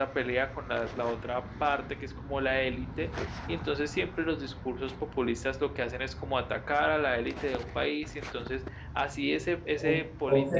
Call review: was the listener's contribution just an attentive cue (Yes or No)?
No